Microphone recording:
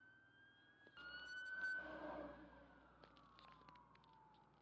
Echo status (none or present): none